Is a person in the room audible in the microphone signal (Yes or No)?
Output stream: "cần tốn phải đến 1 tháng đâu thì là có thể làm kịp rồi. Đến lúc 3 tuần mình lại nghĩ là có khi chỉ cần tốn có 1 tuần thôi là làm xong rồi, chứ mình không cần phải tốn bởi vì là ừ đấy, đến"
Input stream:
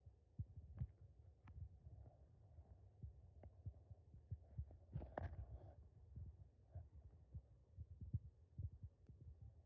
No